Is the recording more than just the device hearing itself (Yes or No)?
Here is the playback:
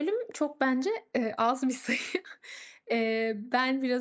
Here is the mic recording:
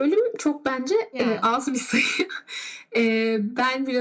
Yes